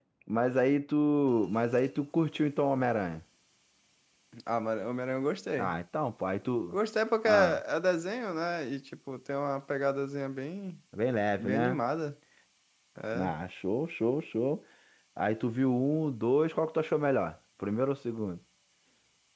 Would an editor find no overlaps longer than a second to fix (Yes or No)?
Yes